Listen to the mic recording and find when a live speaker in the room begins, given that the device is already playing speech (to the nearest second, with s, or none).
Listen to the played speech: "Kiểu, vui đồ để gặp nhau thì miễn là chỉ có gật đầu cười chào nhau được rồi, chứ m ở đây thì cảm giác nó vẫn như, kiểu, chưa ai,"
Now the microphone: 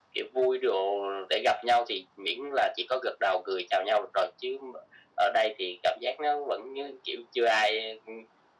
none